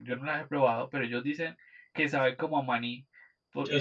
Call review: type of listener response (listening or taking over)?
listening